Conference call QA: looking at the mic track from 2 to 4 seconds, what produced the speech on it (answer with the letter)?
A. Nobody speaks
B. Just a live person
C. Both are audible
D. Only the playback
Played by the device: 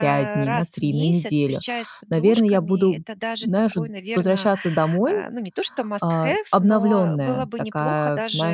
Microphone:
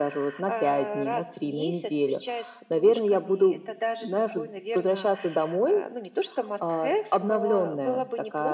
D